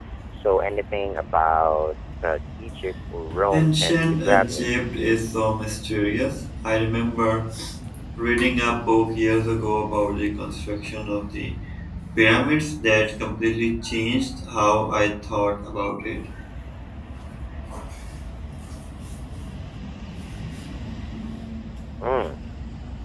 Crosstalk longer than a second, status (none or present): present